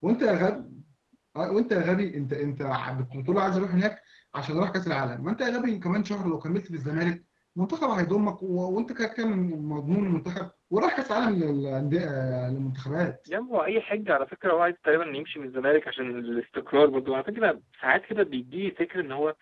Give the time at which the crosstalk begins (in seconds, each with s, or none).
none